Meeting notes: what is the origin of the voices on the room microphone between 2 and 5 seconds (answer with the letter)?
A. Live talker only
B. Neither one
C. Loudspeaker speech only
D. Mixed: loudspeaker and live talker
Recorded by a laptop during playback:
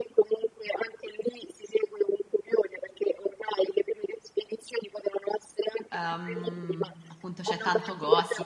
C